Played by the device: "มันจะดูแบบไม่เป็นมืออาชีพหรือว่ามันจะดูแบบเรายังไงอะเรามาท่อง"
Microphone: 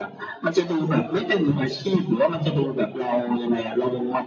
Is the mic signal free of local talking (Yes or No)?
Yes